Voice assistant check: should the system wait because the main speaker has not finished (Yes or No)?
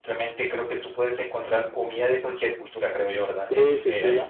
No